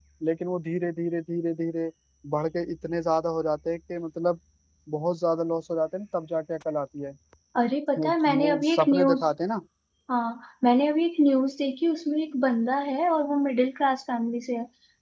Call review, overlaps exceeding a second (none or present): present